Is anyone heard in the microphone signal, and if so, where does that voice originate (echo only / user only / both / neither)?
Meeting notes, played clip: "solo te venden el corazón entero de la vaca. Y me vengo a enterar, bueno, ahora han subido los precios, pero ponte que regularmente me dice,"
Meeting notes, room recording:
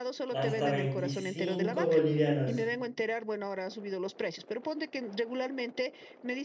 both